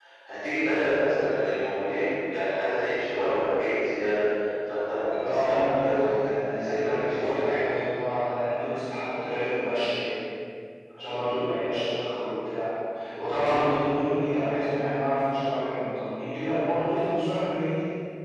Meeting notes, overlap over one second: present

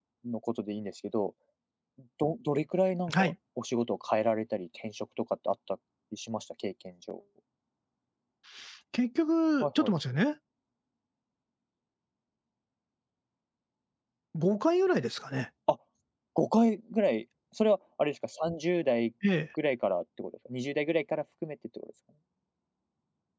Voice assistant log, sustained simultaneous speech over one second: none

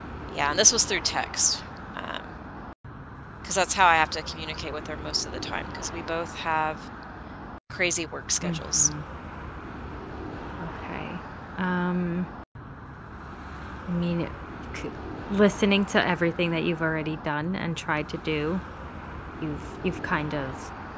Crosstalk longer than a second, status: none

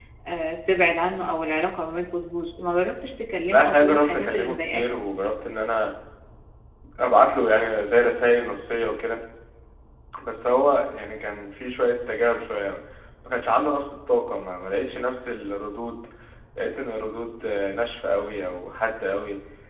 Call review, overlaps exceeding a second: present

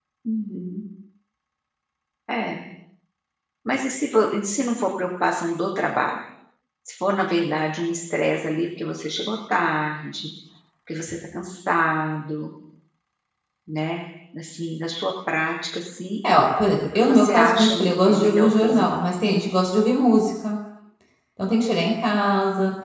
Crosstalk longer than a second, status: present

